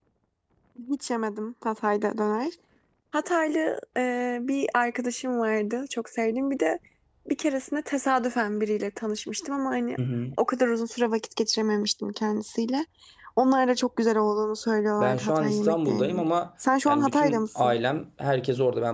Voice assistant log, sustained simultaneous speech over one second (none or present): present